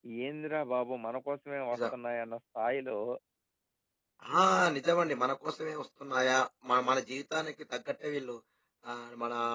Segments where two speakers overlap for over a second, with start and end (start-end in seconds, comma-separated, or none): none